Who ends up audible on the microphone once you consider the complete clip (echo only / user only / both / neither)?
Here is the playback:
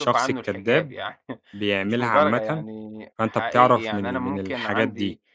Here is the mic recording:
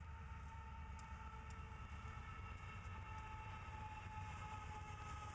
neither